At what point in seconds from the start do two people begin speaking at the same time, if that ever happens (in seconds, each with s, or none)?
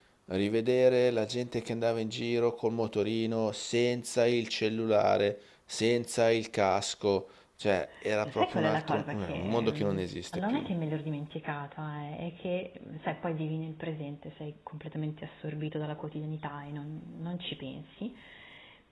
8.2 s